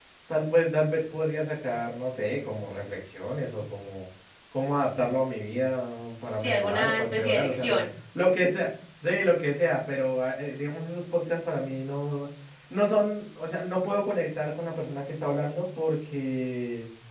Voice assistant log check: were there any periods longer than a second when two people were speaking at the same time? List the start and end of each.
6.4-7.8

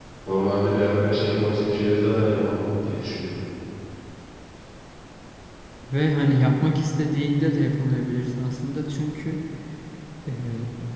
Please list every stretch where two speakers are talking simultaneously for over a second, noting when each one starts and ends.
none

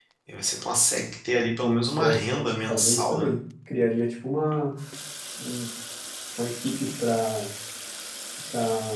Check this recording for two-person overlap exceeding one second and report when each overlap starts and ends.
1.6-3.3

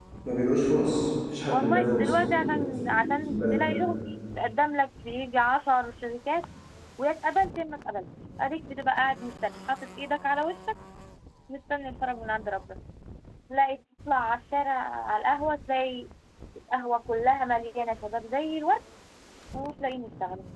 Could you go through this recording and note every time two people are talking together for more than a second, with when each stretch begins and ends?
1.5-3.8

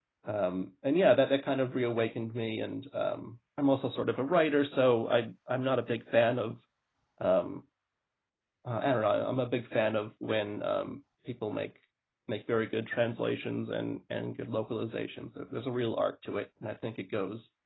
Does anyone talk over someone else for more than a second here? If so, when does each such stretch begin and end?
none

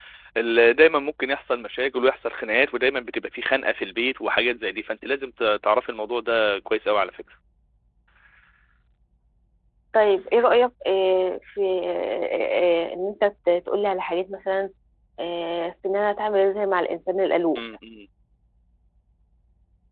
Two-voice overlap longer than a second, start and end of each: none

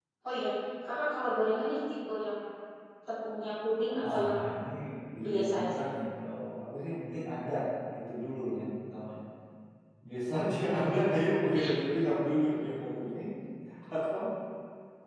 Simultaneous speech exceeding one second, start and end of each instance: none

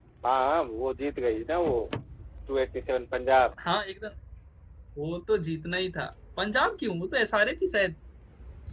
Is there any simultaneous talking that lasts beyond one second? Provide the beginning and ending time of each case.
none

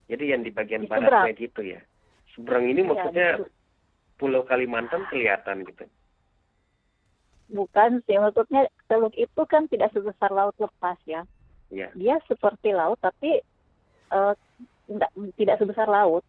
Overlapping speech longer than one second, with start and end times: none

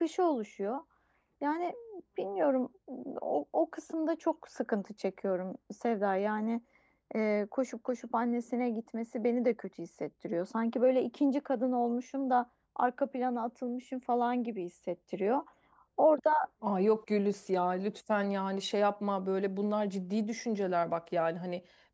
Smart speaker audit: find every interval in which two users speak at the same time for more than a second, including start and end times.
none

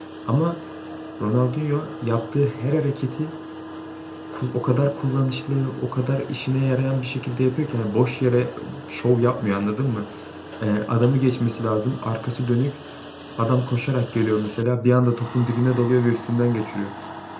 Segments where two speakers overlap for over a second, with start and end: none

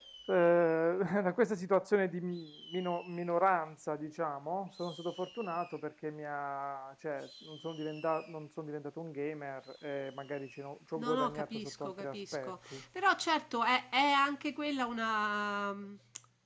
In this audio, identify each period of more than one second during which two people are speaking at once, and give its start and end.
11.0-12.8

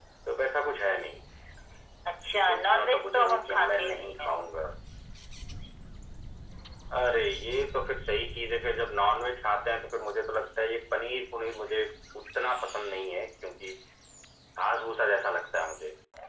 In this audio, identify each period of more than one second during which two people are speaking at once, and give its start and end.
2.5-4.0

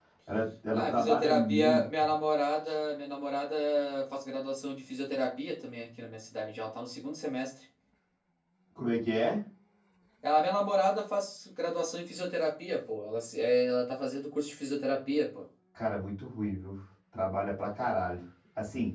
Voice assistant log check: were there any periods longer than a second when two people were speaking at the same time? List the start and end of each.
0.7-2.1

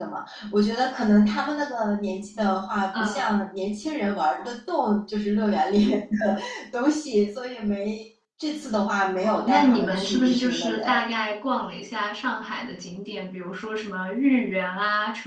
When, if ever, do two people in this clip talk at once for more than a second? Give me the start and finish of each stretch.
9.2-10.8

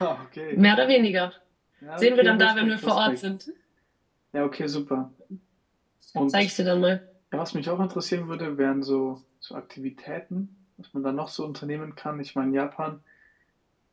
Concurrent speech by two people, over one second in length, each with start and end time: 2.0-3.2

